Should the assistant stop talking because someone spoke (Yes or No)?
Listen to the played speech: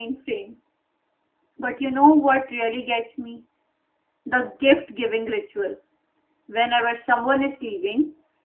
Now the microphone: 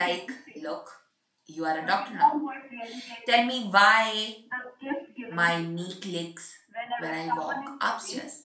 Yes